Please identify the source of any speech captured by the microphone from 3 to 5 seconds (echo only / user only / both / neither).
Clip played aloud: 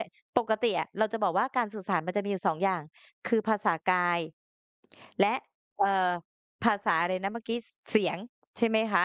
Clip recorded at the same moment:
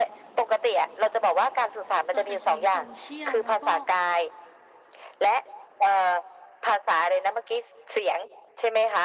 both